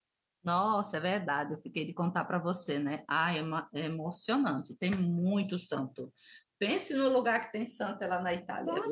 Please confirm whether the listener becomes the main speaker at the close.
Yes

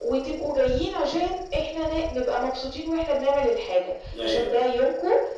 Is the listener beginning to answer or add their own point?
No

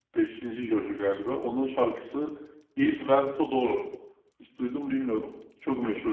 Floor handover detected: No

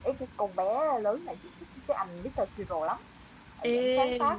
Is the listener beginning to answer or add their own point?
No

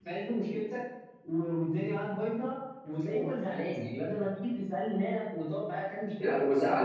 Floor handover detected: Yes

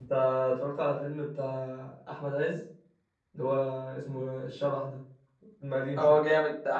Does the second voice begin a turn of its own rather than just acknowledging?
Yes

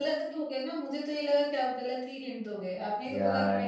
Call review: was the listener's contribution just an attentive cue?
No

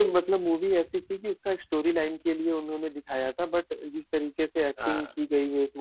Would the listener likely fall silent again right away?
Yes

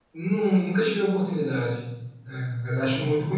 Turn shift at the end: No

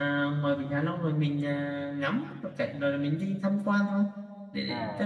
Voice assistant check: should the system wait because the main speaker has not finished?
No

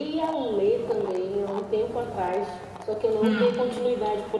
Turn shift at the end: No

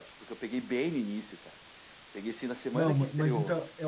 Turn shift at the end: Yes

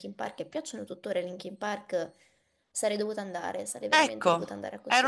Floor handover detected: Yes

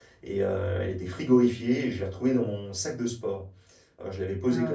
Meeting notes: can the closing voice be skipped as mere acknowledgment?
Yes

